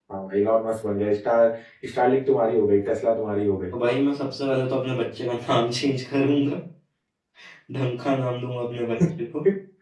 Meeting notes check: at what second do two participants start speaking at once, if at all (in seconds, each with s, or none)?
none